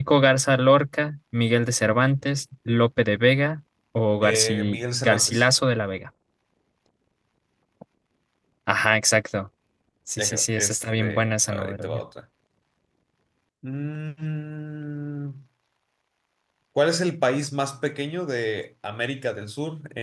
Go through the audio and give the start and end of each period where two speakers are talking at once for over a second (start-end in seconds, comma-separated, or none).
4.2-5.4, 10.2-11.9